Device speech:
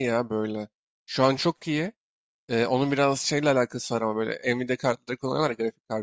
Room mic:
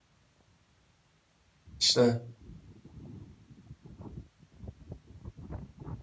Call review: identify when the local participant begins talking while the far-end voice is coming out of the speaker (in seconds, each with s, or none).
1.8 s